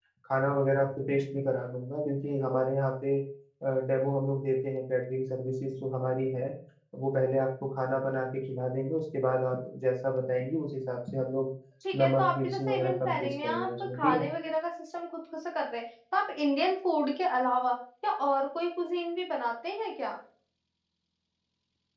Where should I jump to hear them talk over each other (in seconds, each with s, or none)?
12.0 s